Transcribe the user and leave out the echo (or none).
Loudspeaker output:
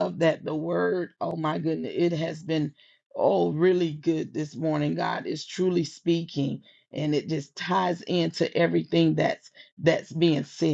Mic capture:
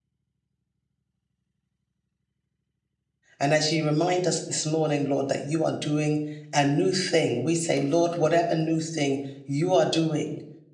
And as you remind us this morning, Lord, that you are doing a new thing, we say, Lord, whatever new thing you are doing,